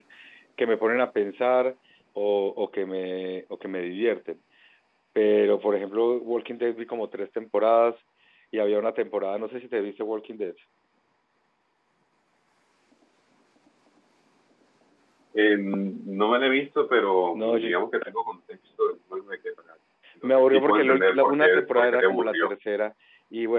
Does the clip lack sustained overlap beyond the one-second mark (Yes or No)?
No